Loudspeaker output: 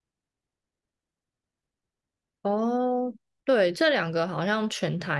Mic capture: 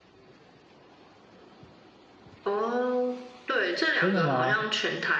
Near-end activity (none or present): present